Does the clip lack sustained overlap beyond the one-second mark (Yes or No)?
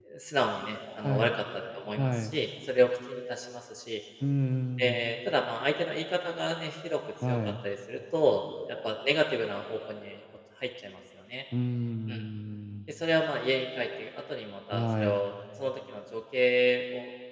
Yes